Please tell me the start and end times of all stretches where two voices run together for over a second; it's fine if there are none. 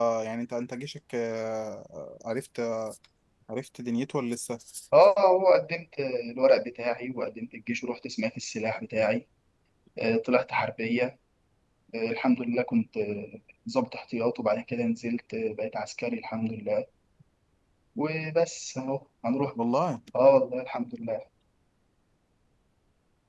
none

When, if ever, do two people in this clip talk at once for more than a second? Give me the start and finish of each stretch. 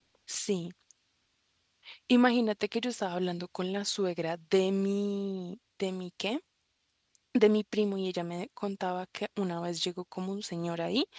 none

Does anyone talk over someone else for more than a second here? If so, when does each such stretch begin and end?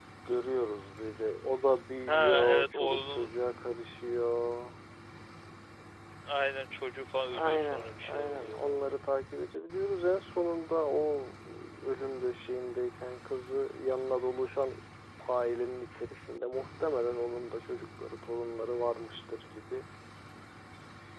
2.1-3.3, 7.3-8.9

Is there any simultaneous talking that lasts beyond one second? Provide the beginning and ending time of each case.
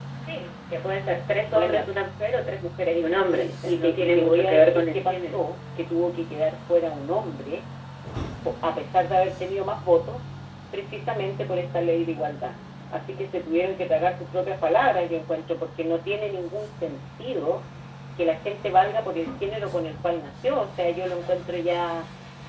3.4-5.4

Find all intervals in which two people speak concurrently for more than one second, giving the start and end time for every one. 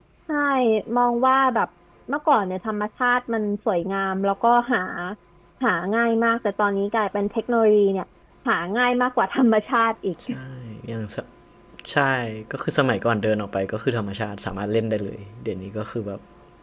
none

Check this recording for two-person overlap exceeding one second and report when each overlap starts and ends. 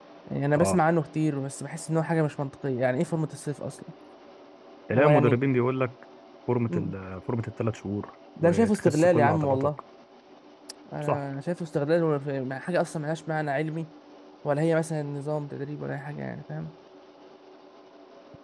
8.4-9.7

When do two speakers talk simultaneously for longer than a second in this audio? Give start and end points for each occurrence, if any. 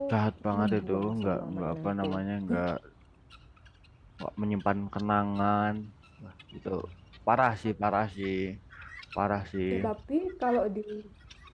0.6-2.1

